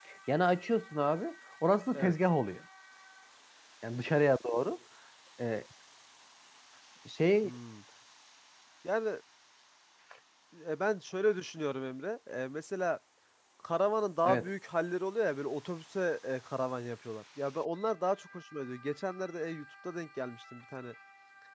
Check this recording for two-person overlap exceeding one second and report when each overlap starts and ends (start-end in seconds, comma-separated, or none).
none